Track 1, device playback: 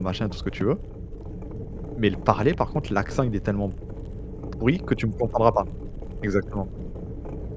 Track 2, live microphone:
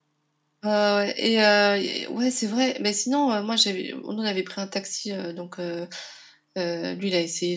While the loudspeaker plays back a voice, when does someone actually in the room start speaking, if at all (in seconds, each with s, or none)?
0.6 s